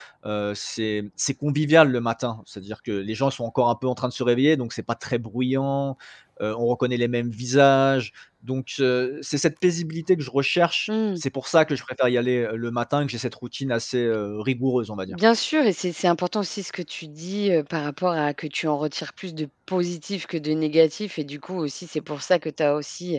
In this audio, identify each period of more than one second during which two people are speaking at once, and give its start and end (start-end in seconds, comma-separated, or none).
none